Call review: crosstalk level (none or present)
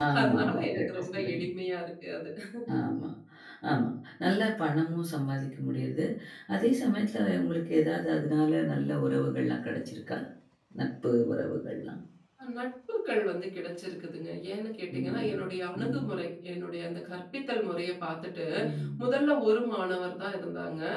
present